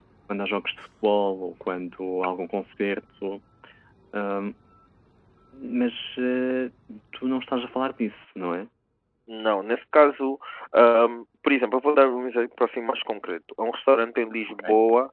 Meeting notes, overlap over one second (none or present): none